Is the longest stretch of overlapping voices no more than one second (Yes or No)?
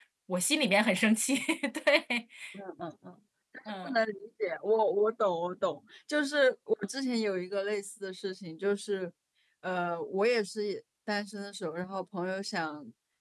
Yes